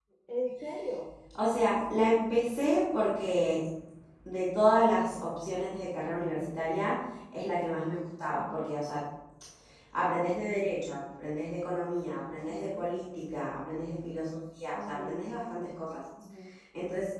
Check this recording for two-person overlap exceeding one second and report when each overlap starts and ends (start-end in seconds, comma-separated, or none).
none